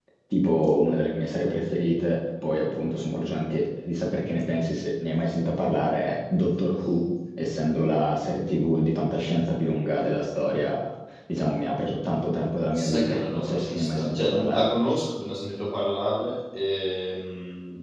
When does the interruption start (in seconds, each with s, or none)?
12.7 s